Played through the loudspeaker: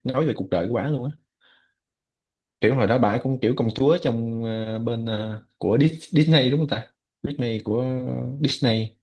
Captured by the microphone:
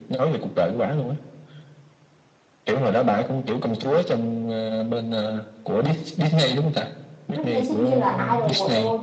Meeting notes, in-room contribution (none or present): present